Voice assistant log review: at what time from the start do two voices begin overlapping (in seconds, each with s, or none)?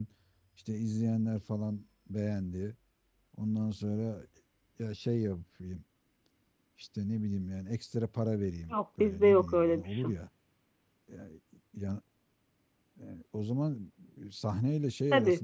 8.7 s